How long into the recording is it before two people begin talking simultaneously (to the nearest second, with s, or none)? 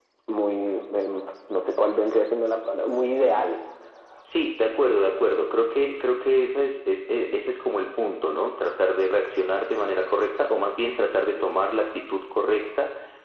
none